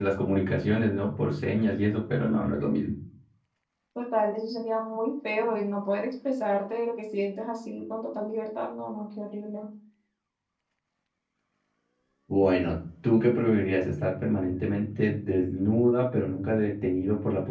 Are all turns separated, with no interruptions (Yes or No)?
Yes